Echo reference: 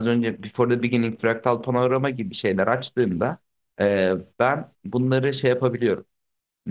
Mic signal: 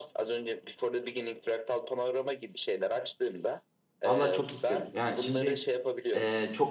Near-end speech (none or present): present